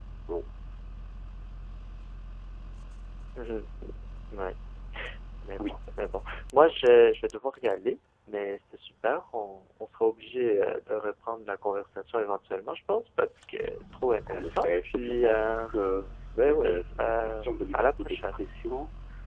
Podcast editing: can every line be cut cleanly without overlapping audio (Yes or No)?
No